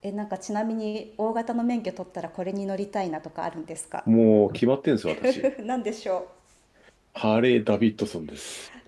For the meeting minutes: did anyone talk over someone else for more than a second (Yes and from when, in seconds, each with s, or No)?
No